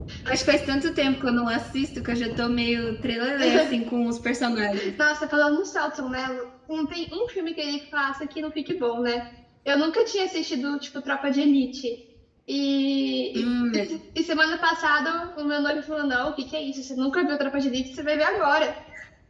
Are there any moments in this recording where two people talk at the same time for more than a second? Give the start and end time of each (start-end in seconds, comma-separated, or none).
none